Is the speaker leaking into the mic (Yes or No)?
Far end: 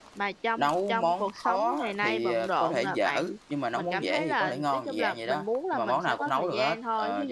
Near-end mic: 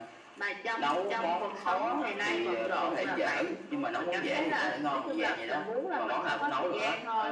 Yes